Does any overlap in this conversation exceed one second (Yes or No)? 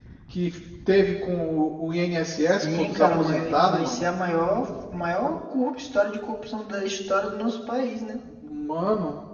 Yes